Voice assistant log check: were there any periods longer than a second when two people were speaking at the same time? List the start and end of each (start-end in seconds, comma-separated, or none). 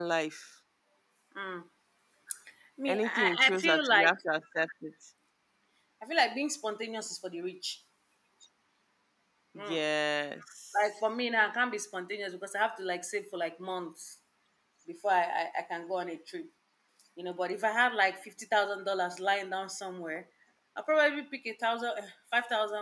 2.9-4.1